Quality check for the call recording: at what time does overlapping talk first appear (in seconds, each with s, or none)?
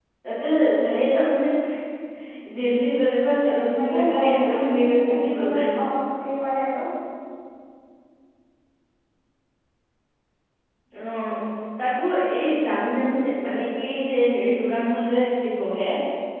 3.6 s